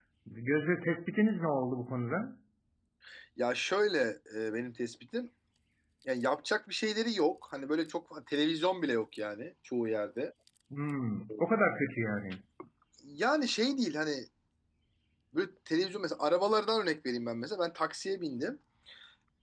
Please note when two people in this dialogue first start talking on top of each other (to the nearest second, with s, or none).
none